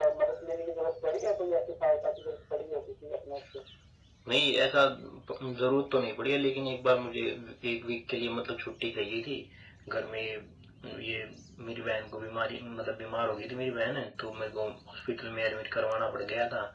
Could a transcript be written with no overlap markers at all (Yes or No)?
Yes